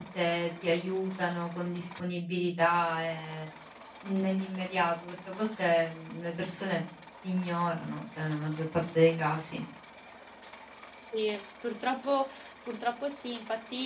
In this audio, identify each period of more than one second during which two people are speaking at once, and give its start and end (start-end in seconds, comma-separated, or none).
none